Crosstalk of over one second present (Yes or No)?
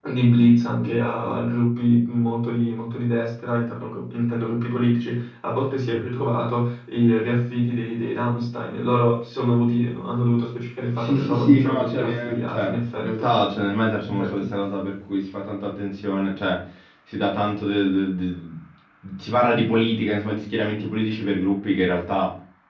Yes